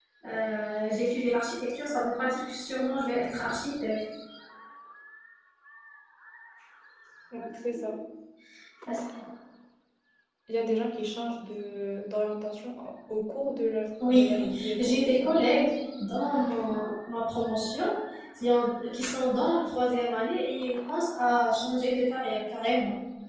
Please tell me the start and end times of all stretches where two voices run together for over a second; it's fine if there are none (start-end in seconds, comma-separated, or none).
14.1-15.5